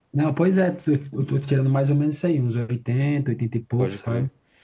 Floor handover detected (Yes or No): Yes